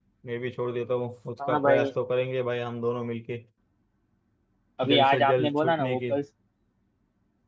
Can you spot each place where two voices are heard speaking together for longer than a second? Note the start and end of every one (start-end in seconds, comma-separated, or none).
4.9-6.1